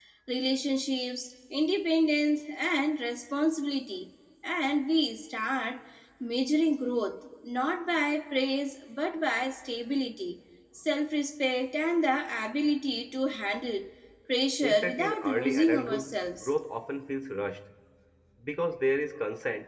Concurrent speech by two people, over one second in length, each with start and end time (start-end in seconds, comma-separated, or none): 14.6-16.5